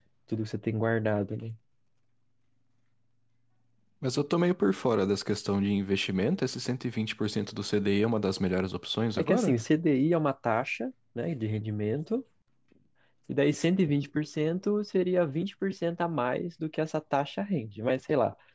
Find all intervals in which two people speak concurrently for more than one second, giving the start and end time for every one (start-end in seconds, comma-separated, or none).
none